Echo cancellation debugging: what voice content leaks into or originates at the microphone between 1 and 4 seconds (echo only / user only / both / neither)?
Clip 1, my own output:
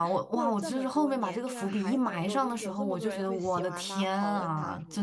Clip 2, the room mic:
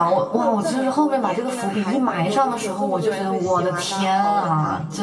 echo only